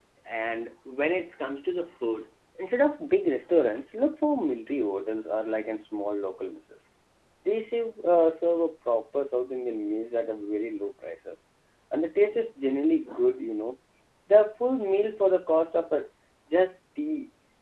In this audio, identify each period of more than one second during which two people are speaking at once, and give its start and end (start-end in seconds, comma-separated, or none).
none